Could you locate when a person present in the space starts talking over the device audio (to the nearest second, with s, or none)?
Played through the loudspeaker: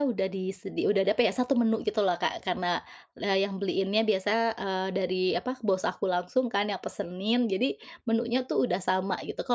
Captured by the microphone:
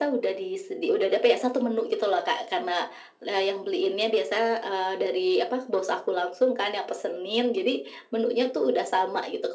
none